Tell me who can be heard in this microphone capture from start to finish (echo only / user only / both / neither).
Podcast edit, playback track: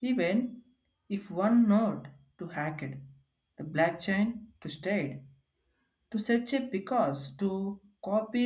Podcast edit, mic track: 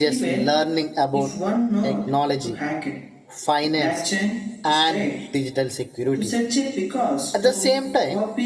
both